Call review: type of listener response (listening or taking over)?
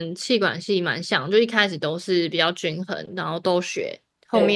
listening